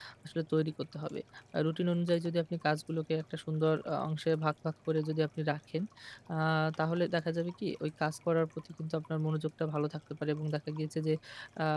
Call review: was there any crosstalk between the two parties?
No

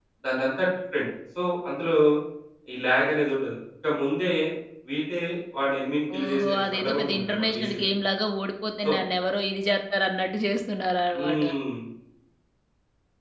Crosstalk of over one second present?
Yes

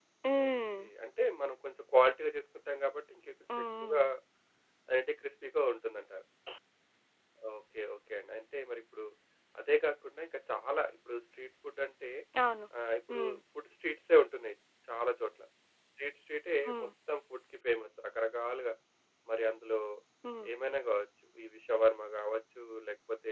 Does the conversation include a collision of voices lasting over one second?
No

